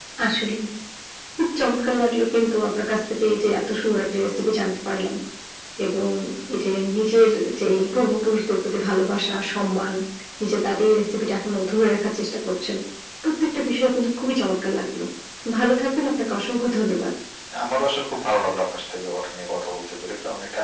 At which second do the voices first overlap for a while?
none

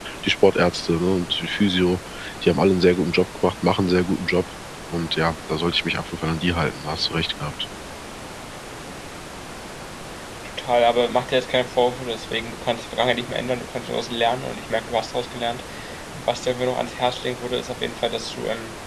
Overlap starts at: none

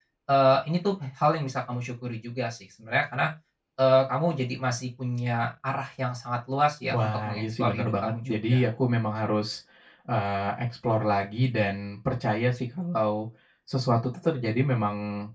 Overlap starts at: 7 s

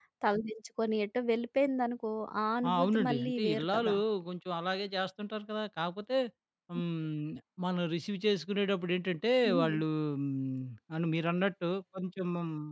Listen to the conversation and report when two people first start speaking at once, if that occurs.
3 s

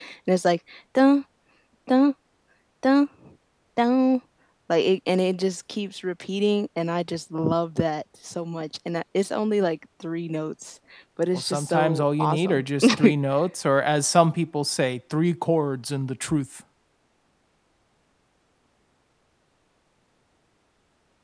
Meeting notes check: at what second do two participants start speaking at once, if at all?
11 s

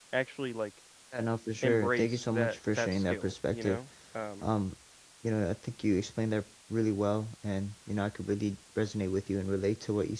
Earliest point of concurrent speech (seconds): 2 s

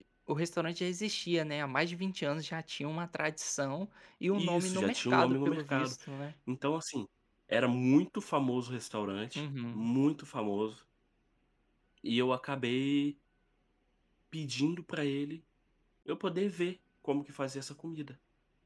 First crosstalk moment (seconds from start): 4 s

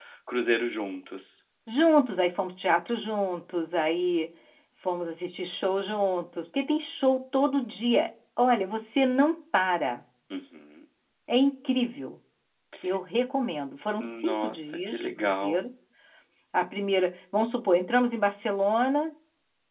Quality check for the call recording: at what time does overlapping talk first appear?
14 s

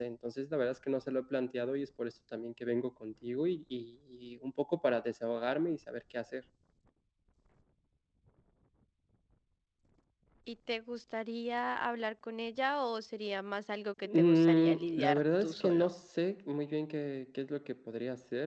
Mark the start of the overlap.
14 s

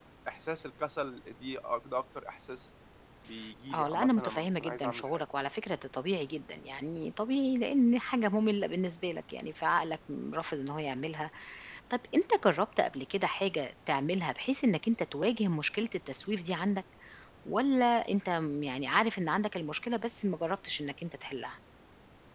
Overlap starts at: 4 s

